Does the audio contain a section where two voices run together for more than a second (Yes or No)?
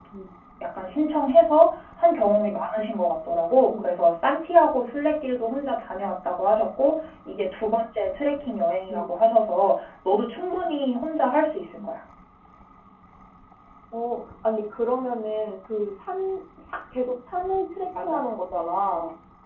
No